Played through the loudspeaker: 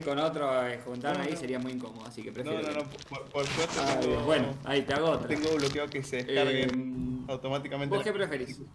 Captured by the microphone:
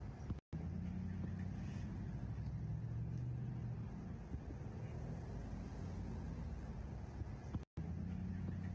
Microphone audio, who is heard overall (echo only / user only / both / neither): neither